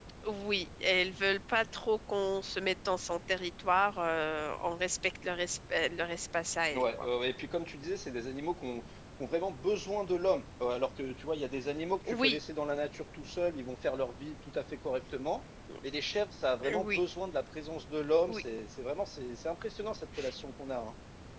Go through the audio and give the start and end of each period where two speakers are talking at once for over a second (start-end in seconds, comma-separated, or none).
none